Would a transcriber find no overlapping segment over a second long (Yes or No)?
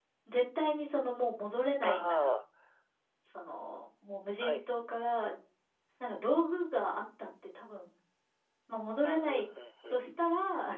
Yes